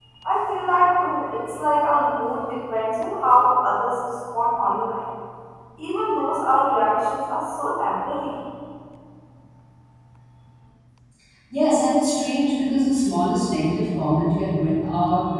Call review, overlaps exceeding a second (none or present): none